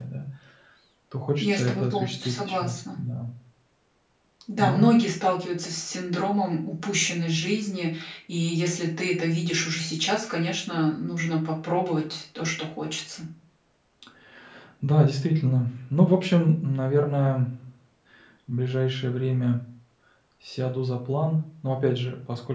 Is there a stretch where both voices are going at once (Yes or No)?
Yes